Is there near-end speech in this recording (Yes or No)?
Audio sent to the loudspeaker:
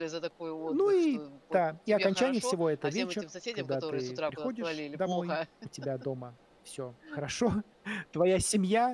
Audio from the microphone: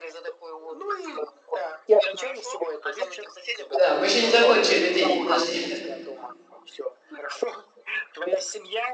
Yes